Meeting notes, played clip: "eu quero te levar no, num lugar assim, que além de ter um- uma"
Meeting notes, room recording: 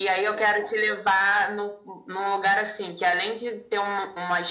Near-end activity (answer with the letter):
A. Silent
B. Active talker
A